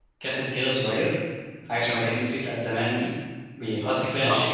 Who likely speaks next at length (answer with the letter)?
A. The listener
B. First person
B